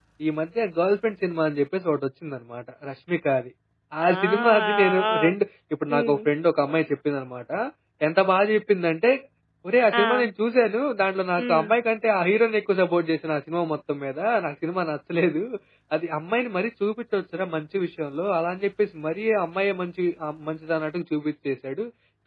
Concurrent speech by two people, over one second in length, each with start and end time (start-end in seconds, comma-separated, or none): 4.0-5.4